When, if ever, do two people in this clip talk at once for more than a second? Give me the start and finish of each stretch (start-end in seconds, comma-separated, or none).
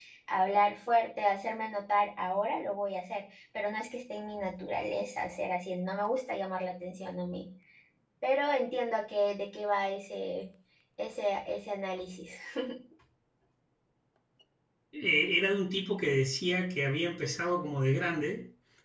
none